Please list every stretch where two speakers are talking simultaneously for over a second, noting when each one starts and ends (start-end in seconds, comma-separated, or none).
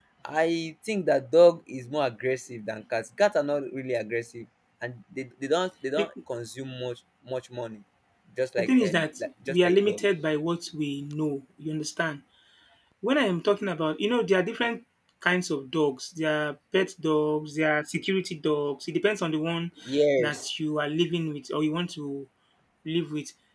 8.6-10.0